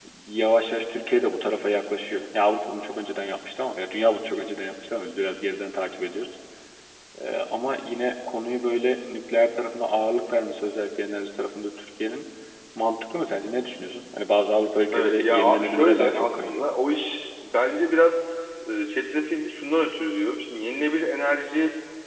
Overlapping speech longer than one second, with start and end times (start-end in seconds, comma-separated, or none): 14.9-16.6